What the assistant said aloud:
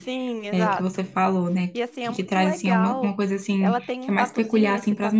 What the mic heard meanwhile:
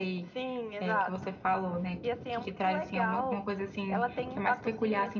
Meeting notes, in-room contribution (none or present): none